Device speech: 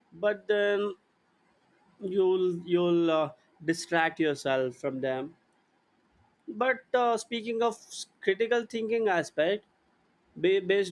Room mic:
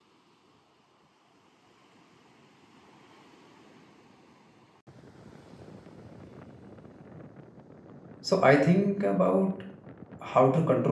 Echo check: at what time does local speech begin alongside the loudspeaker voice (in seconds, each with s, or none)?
8.2 s